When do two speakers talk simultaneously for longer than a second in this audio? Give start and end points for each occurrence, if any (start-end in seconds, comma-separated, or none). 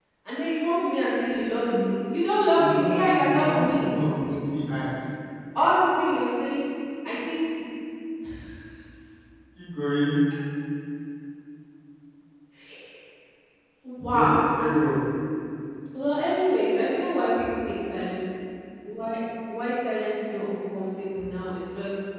2.5-3.9